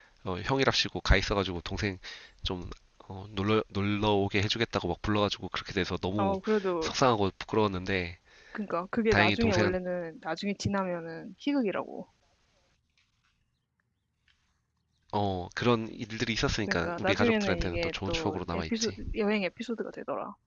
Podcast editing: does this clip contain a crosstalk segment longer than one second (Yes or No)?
Yes